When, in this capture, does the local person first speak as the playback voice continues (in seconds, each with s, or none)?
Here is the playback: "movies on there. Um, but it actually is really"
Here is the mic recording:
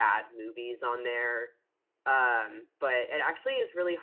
none